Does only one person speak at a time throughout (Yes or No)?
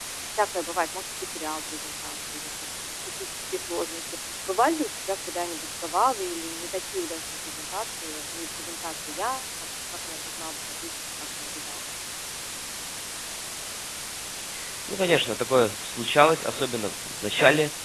Yes